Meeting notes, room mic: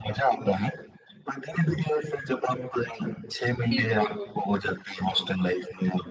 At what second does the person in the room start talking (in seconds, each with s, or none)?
3.7 s